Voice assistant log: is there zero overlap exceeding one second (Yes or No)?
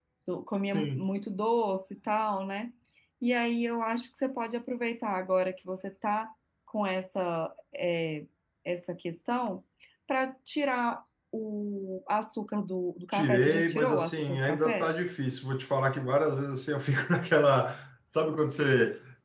No